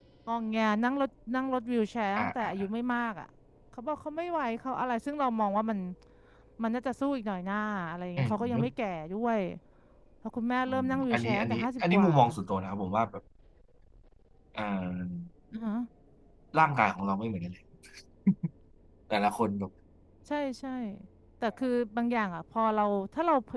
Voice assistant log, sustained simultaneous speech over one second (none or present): present